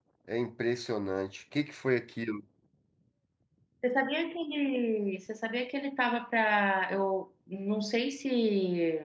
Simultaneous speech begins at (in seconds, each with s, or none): none